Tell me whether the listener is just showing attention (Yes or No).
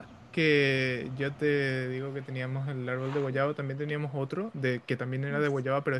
Yes